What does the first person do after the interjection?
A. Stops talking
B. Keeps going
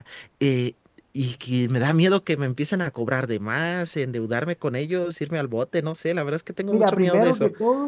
A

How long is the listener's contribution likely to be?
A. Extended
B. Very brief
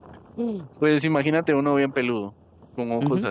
A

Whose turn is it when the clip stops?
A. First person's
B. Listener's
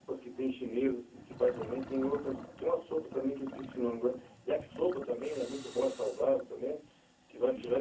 A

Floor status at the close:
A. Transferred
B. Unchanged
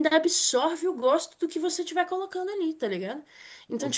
B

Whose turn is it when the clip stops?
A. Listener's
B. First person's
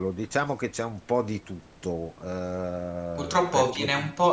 A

